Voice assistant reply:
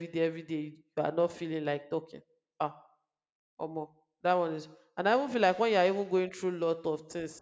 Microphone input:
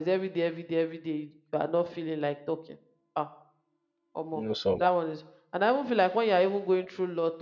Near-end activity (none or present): present